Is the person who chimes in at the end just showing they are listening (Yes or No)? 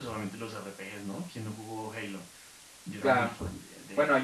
No